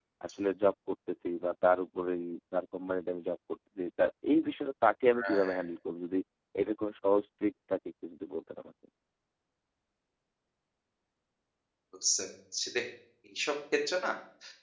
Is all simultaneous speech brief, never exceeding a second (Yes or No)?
Yes